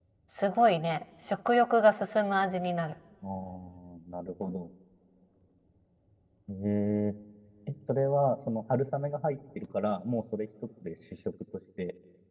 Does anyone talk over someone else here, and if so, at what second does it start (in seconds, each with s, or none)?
none